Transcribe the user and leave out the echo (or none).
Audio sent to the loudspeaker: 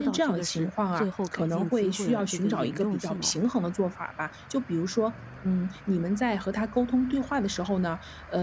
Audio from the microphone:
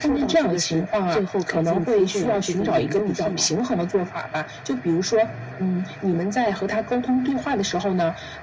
none